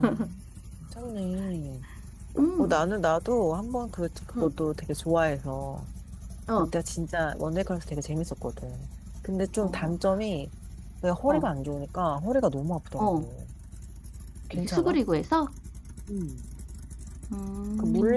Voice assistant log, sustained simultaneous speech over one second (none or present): none